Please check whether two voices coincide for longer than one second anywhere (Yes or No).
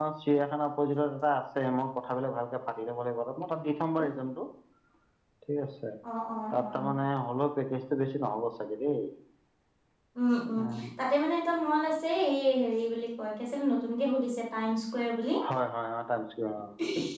No